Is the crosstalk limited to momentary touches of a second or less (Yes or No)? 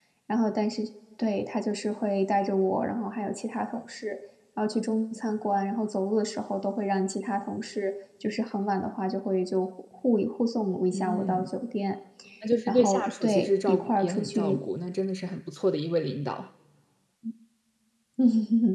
No